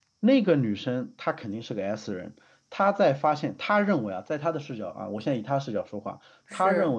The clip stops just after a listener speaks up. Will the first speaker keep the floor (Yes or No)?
Yes